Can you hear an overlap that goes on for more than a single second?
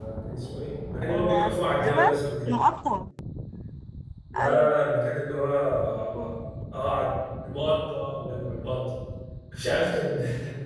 Yes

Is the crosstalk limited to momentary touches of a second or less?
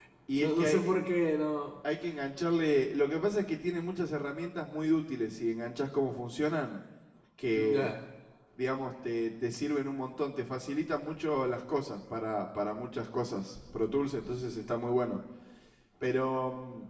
Yes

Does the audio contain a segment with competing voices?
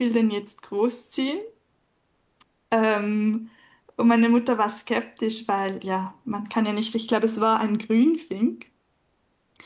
No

